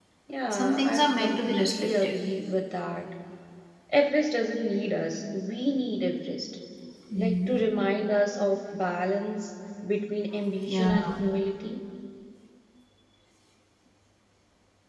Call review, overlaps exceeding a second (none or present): present